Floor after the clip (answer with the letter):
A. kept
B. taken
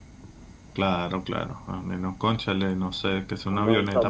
B